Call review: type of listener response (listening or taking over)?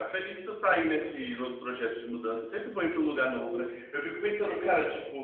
listening